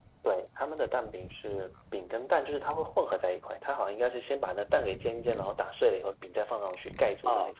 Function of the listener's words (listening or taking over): taking over